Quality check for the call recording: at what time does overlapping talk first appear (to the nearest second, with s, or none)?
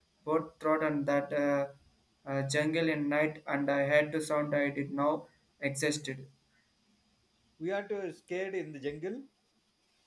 none